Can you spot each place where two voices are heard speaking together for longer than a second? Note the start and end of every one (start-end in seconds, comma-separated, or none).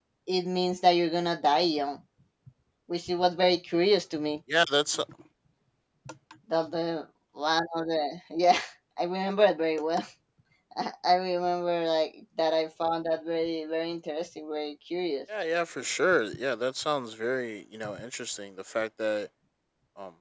none